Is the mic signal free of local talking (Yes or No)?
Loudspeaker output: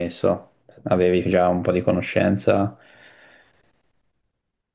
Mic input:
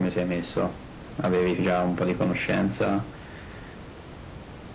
Yes